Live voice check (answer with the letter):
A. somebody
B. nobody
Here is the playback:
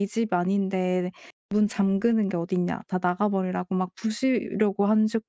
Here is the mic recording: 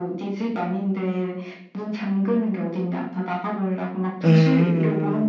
A